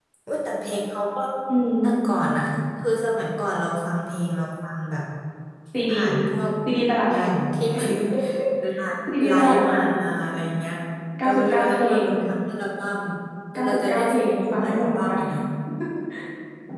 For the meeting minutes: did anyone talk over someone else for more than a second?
Yes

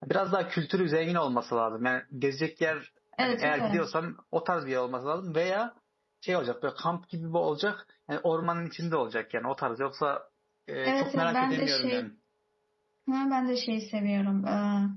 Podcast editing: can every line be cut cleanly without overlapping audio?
No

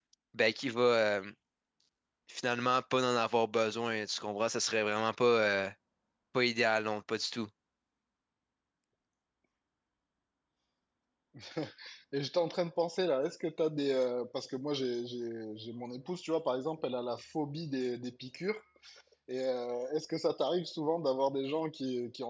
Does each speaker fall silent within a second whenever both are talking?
Yes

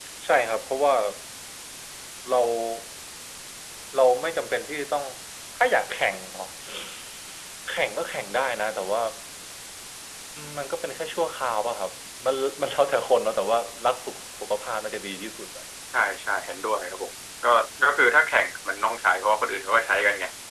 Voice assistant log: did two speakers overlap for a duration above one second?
No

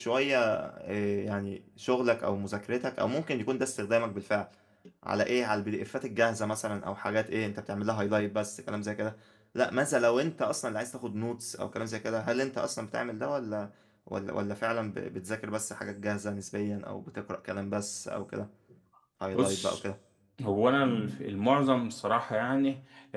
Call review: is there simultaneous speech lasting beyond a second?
No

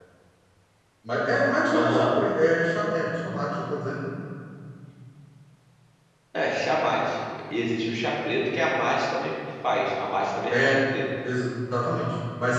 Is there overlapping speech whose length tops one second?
No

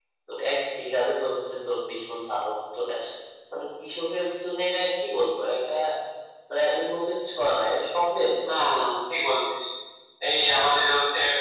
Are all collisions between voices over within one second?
Yes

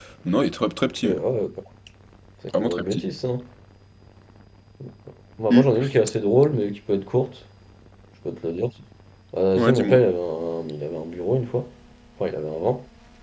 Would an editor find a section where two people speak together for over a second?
No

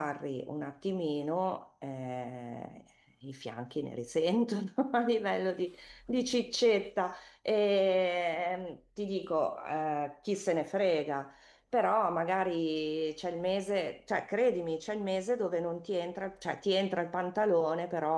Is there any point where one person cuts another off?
No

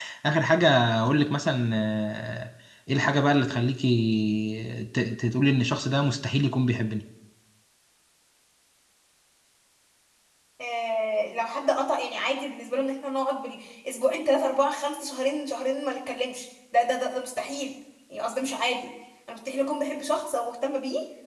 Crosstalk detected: No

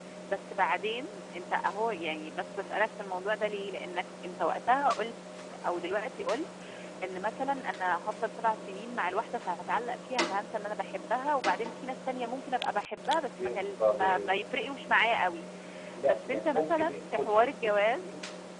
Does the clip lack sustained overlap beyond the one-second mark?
No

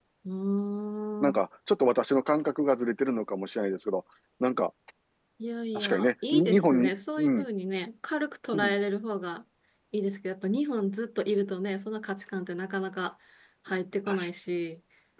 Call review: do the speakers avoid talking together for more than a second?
No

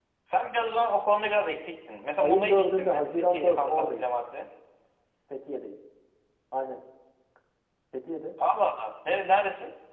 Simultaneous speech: Yes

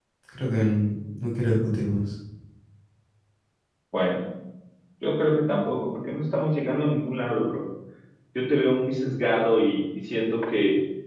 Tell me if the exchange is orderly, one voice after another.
Yes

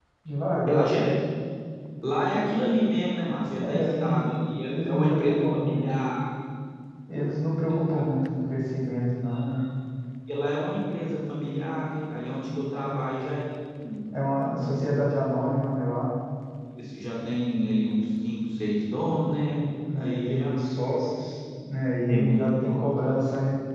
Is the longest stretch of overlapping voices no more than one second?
No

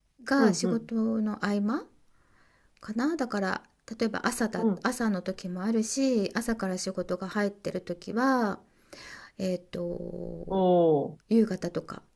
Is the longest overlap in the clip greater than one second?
No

